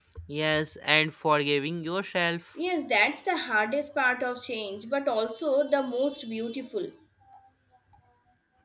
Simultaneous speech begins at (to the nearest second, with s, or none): none